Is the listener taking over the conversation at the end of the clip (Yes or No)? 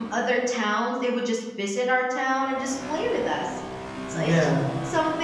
No